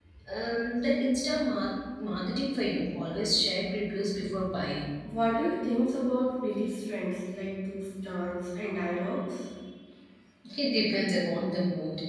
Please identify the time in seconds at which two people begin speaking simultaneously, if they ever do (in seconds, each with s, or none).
none